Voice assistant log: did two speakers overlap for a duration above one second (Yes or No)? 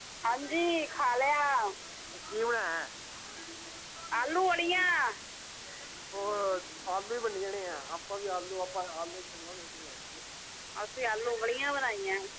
No